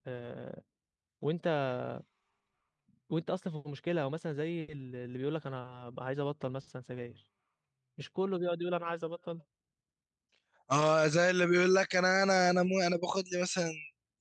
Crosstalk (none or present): none